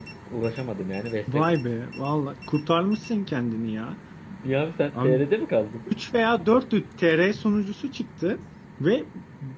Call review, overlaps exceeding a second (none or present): none